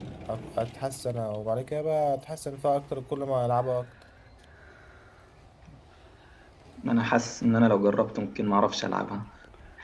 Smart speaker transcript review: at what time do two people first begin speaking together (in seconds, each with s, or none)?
none